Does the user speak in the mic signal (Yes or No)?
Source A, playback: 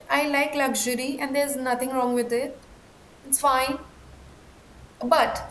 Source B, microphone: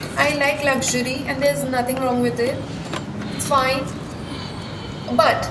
No